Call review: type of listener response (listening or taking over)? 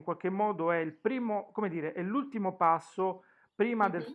listening